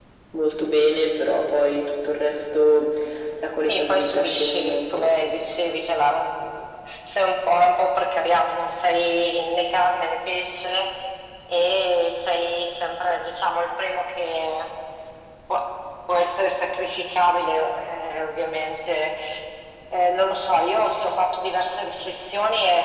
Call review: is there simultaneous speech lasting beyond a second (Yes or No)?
Yes